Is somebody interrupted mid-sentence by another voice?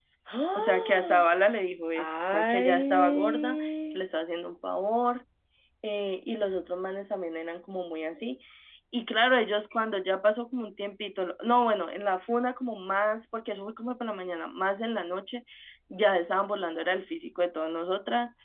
Yes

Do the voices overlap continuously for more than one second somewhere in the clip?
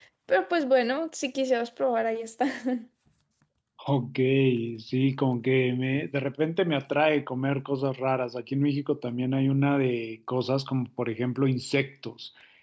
No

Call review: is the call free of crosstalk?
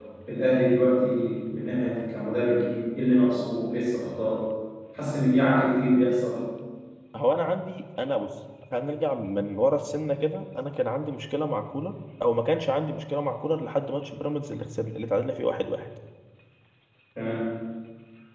Yes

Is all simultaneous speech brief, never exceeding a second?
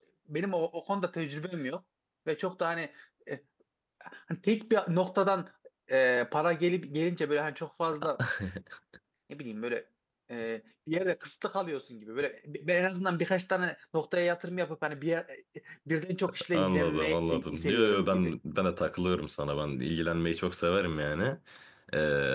No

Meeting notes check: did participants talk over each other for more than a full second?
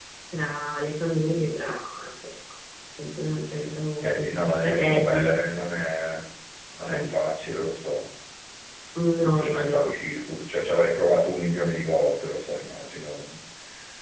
Yes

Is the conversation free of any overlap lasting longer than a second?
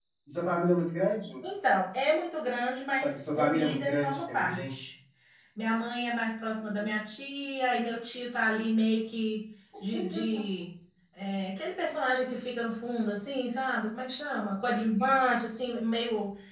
No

